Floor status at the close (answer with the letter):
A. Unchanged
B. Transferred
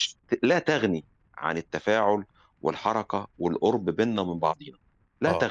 B